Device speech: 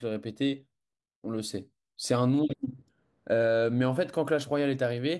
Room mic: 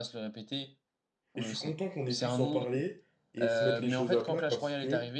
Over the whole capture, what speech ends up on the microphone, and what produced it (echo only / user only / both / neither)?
both